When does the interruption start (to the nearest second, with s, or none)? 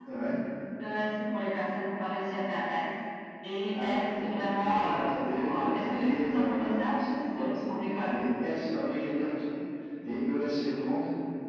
4 s